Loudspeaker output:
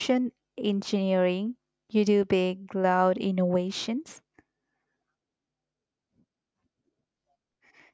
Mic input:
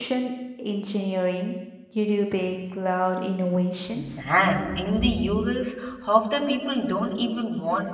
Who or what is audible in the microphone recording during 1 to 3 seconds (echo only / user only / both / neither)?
echo only